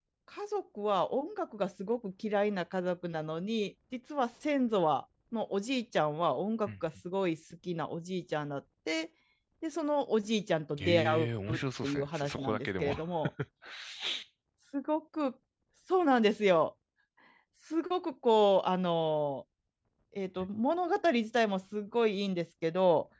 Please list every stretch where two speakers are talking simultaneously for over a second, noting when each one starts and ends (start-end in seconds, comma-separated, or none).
10.8-12.9